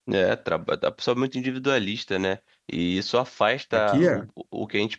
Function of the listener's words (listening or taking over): listening